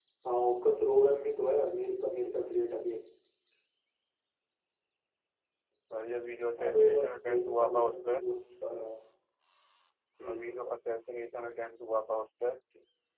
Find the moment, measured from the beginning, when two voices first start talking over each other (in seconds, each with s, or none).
6.6 s